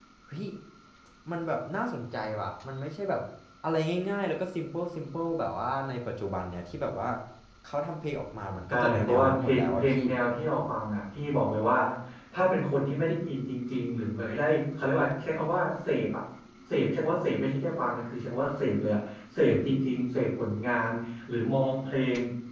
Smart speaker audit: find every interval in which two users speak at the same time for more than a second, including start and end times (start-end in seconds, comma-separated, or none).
8.7-10.0